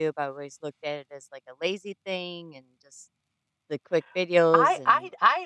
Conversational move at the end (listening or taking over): taking over